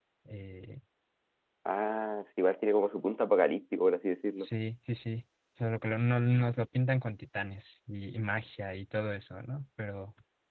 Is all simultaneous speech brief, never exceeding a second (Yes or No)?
Yes